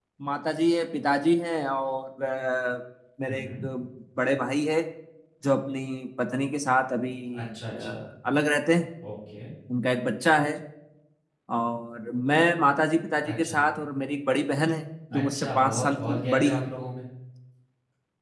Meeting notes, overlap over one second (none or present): present